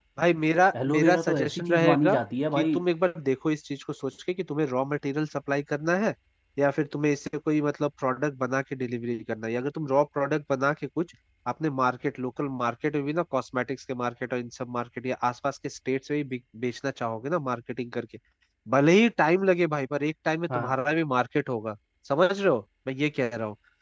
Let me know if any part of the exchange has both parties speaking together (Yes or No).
Yes